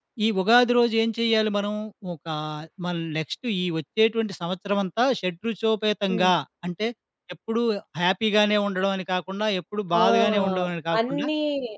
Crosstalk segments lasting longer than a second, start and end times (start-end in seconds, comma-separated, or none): 9.9-11.2